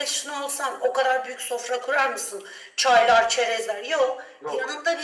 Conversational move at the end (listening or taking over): listening